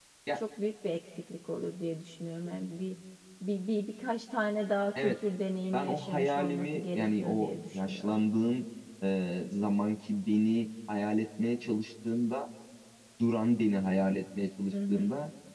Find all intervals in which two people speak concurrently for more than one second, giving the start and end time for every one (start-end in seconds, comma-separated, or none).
5.7-8.1